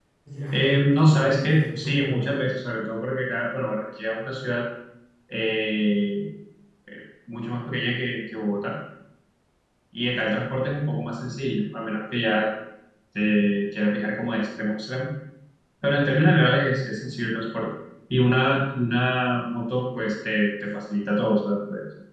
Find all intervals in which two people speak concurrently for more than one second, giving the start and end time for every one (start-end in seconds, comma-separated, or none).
0.5-2.5